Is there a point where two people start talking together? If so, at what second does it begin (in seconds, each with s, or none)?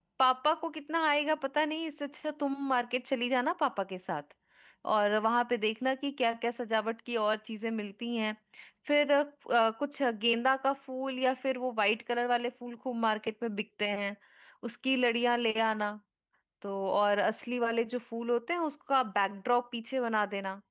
none